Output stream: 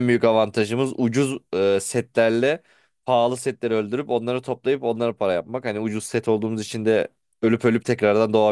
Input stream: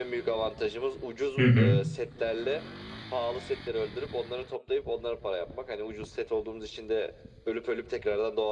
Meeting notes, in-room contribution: present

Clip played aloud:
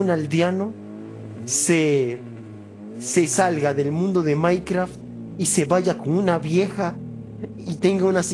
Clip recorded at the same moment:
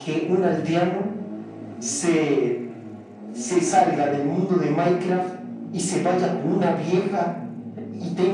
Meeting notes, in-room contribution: none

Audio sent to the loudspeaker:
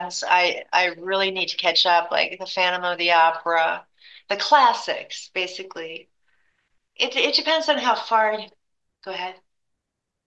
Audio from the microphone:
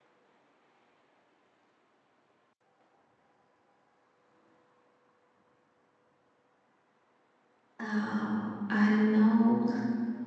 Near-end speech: present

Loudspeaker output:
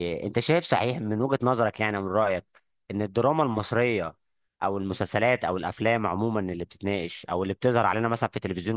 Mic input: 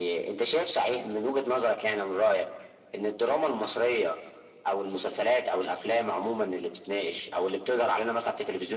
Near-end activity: none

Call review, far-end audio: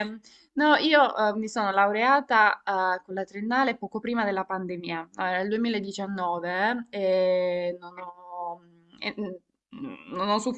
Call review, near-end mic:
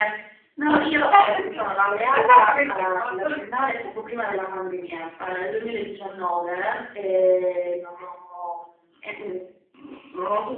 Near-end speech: present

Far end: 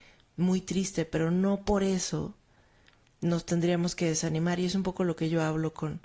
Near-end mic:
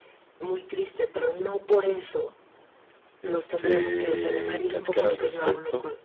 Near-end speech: present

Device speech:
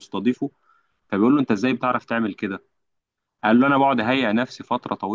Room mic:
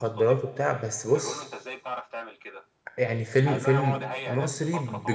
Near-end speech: present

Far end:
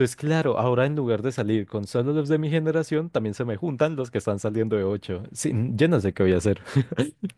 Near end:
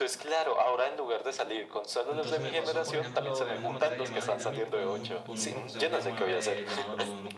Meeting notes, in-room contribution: present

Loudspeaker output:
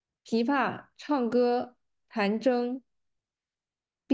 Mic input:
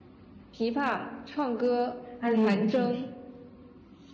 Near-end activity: present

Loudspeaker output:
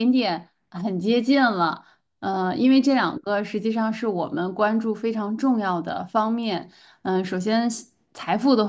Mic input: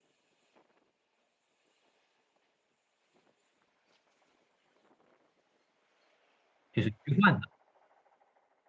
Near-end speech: present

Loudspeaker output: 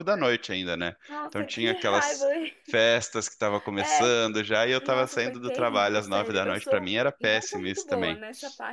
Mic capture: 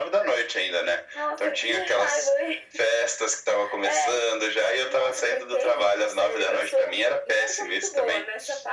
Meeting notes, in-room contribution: none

